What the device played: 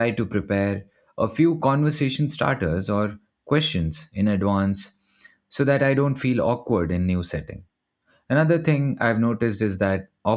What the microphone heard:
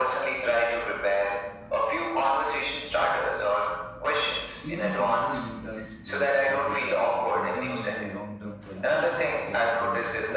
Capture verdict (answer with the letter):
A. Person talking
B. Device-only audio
A